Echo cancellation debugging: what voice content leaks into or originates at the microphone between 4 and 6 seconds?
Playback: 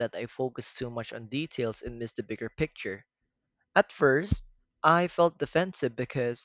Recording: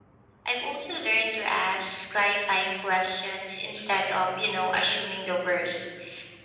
user only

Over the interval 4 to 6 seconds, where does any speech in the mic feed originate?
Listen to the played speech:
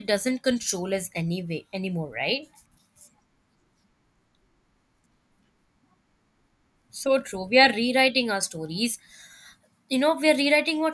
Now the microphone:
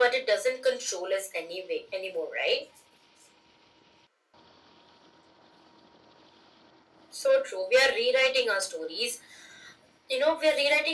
neither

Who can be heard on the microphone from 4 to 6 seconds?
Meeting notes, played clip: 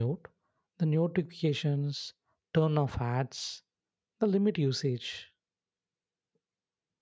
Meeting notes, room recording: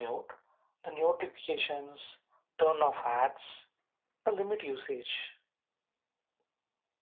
echo only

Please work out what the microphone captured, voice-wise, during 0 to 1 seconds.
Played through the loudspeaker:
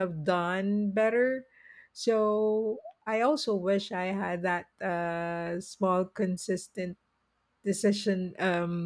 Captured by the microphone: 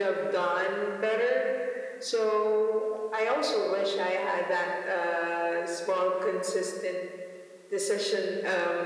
echo only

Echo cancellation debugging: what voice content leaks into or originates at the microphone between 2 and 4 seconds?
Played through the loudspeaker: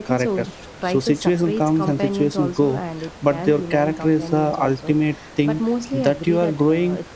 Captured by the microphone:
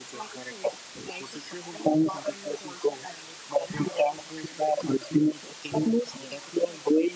echo only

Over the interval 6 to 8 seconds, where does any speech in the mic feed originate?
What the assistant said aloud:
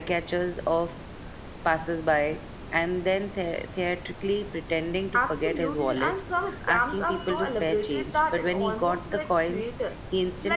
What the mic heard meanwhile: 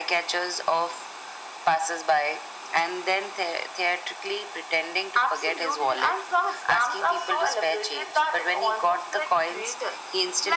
echo only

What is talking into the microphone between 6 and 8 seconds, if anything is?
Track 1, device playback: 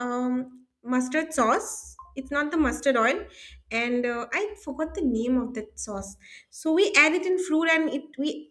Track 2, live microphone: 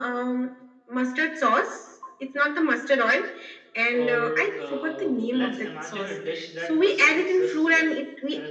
both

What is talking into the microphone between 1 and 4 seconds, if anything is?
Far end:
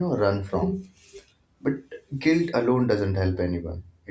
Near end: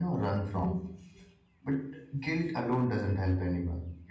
echo only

